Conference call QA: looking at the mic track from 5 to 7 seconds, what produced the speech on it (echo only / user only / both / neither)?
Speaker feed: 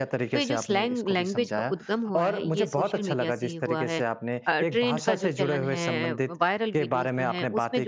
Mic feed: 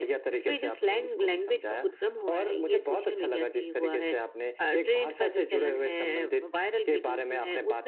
echo only